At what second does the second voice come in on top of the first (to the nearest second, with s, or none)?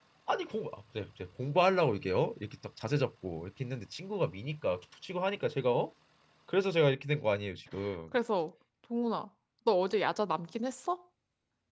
none